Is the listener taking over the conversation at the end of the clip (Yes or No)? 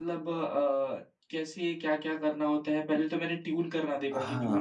Yes